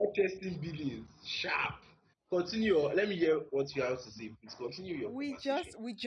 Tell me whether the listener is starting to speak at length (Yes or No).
Yes